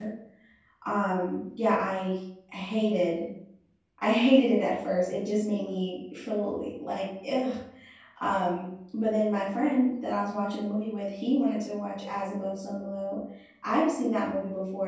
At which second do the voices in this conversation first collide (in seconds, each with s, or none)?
none